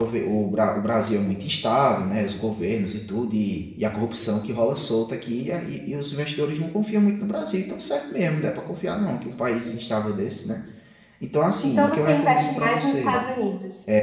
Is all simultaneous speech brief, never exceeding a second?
No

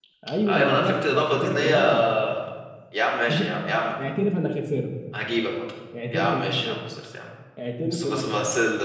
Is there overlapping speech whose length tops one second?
Yes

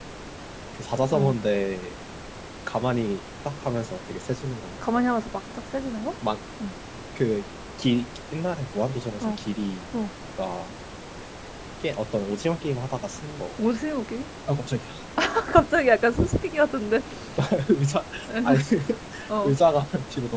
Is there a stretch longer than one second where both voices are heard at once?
No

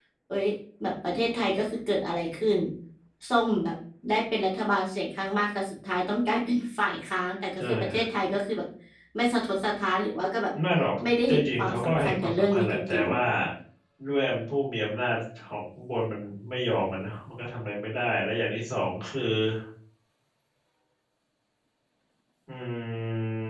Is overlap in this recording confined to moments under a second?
No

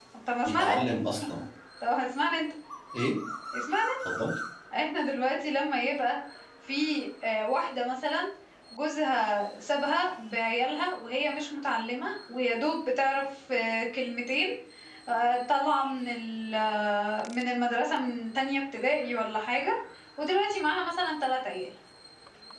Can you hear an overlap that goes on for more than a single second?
No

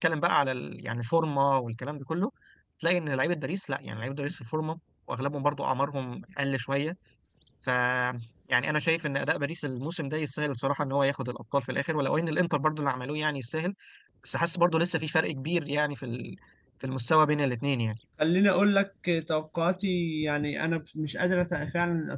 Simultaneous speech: No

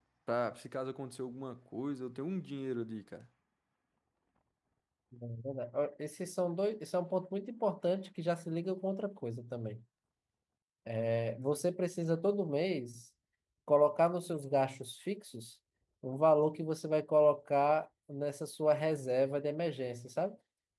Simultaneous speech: No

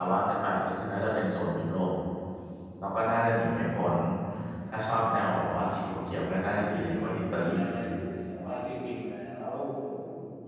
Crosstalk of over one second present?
Yes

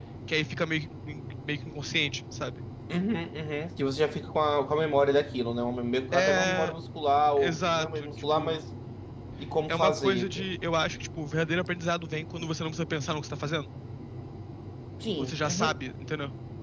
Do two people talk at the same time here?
Yes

